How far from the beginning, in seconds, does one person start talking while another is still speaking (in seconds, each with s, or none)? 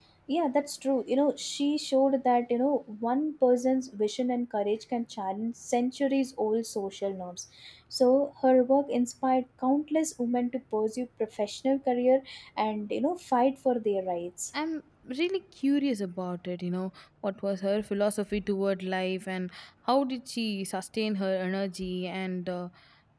none